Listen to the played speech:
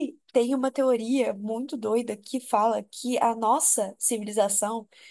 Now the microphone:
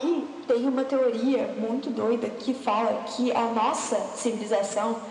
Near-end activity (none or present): none